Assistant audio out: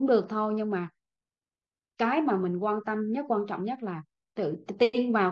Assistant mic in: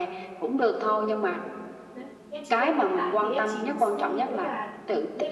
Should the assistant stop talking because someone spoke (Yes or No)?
Yes